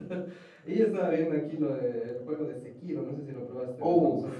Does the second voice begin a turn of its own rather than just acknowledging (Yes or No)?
Yes